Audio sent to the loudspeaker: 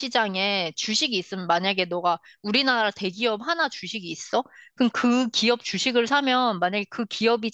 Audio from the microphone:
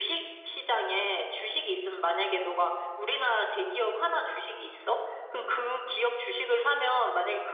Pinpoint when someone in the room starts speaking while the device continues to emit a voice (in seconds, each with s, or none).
none